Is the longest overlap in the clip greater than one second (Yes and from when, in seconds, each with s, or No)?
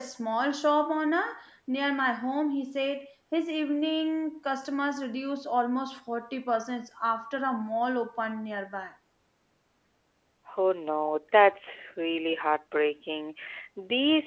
No